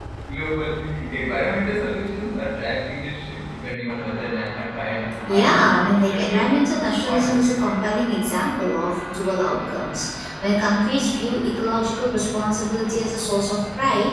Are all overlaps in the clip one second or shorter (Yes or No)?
No